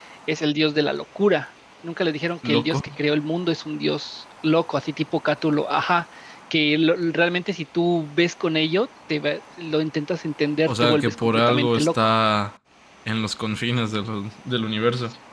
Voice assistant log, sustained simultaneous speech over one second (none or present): present